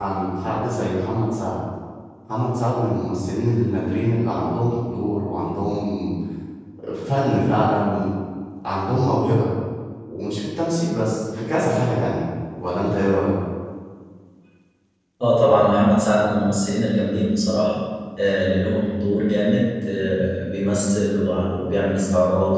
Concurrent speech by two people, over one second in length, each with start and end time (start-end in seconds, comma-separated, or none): none